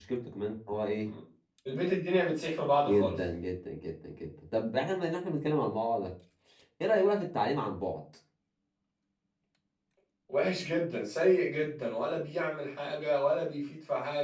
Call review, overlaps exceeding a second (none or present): none